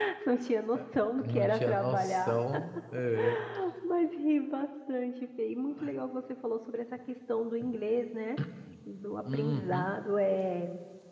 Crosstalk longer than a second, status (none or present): present